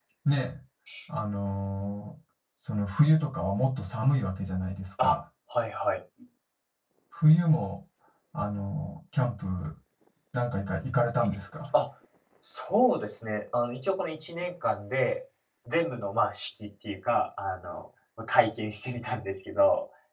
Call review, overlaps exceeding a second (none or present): none